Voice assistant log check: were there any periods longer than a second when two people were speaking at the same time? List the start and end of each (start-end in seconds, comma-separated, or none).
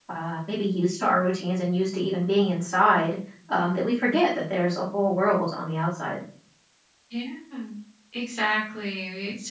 none